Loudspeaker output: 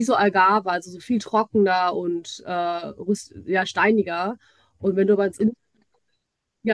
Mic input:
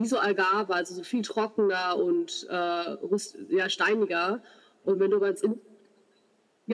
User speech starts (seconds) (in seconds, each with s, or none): none